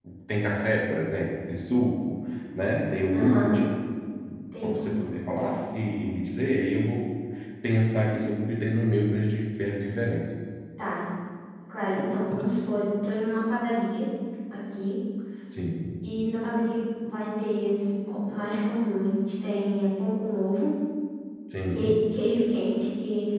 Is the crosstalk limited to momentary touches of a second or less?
Yes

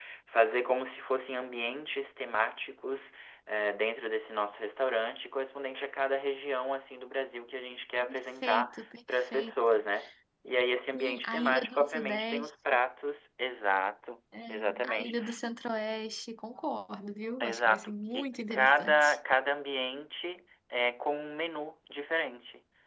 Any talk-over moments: Yes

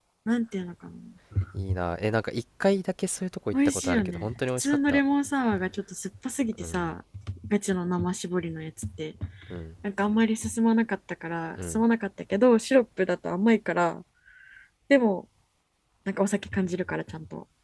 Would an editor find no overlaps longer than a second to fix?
No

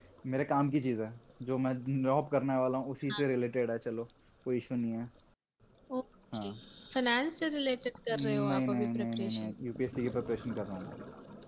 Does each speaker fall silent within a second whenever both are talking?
No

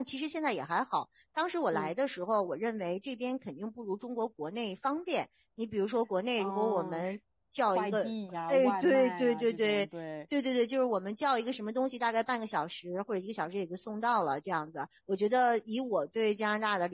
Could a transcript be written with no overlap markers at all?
No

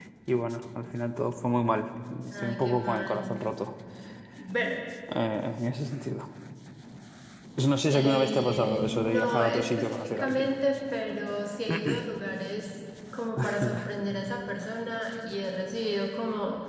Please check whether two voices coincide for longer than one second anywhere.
Yes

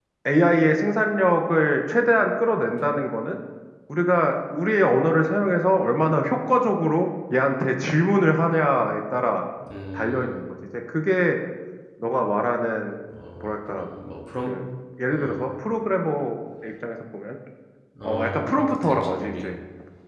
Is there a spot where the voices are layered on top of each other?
Yes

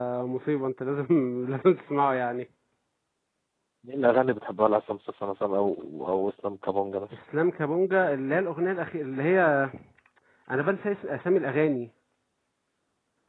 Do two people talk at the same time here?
No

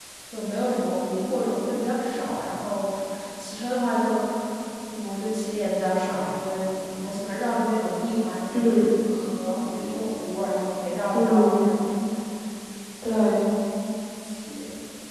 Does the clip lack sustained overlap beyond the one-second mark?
Yes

